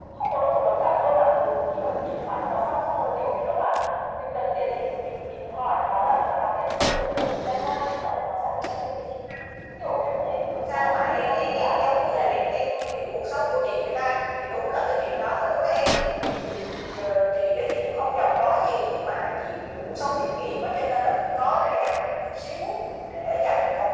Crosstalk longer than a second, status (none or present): present